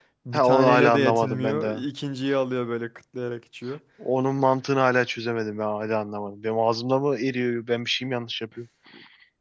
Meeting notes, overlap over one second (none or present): present